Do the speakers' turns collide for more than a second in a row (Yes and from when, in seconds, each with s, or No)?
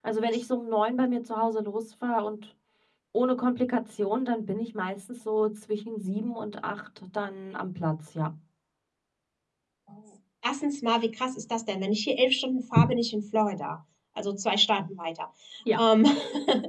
No